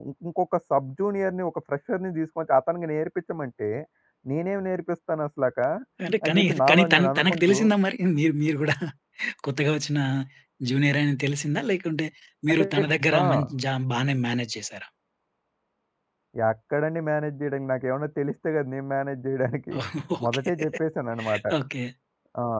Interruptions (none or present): present